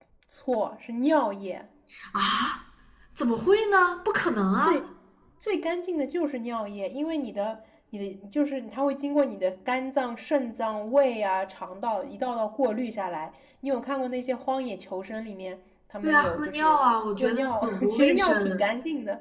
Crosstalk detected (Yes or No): Yes